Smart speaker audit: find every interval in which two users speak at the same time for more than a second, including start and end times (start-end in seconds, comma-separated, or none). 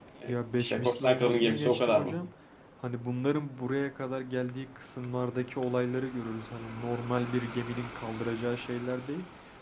0.6-2.2